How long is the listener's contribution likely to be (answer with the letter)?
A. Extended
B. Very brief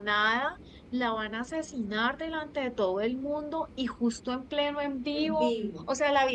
B